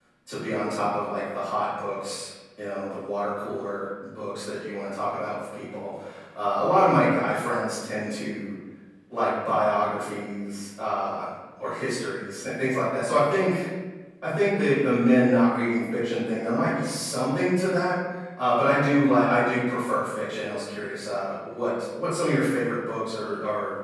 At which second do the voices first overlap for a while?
none

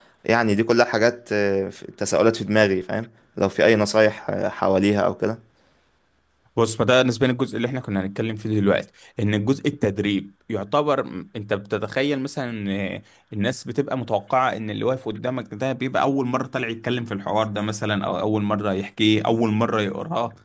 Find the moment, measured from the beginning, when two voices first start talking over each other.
none

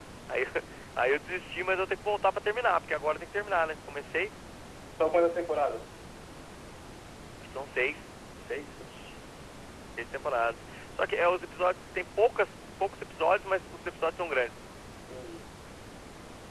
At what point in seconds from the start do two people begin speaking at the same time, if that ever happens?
none

